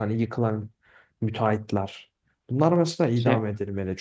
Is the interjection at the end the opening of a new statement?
No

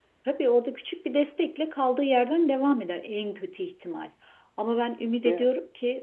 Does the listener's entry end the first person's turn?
No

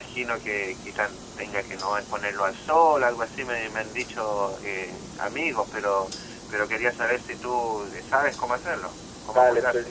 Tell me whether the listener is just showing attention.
No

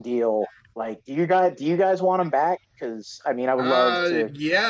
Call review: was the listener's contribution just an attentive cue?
No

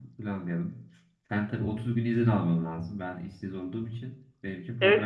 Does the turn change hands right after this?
Yes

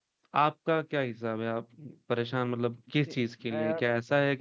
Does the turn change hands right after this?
No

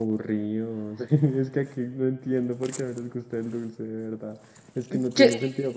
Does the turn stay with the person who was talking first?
Yes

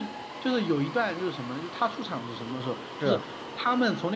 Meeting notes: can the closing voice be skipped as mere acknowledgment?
Yes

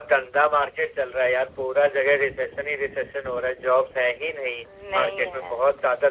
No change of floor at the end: Yes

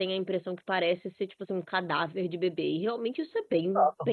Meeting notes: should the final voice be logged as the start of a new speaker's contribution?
Yes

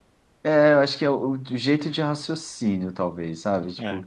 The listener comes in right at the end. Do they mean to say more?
No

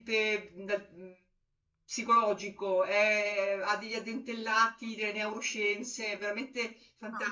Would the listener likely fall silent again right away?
No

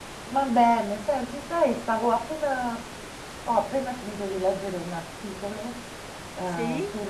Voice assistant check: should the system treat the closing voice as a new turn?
No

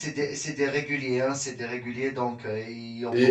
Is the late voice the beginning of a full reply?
Yes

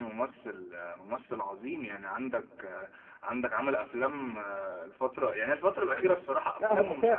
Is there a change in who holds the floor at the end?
Yes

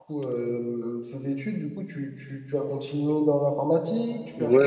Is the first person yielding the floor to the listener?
Yes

